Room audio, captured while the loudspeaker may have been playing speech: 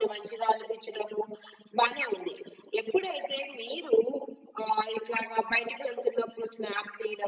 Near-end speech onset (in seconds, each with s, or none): none